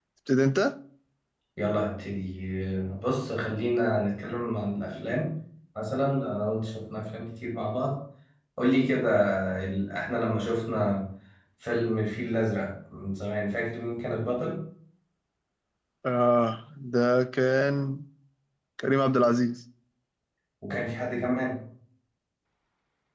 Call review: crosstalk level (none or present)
none